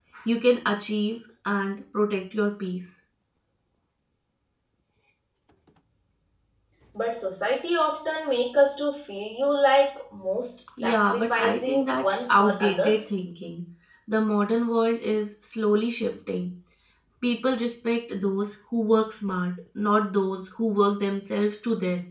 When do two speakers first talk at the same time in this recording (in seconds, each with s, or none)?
10.8 s